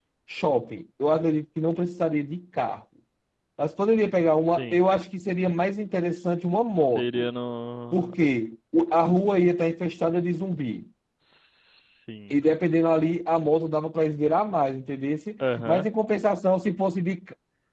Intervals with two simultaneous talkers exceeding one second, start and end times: none

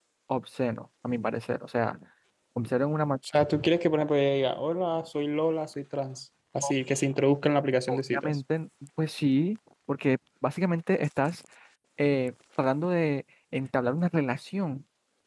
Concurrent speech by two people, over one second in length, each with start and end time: none

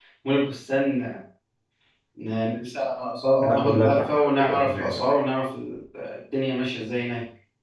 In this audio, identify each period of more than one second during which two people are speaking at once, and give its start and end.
3.4-4.9

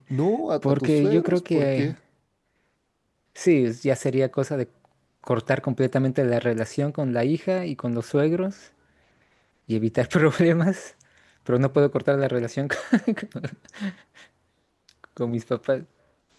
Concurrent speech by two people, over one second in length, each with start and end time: 0.6-1.9

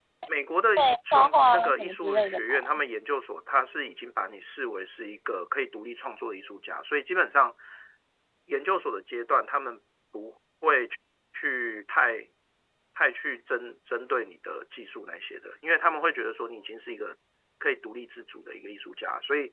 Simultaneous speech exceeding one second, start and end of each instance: 0.8-2.8

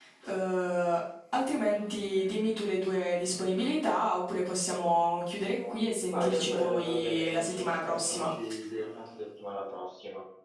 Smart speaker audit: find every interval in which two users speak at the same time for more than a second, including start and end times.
6.1-8.3

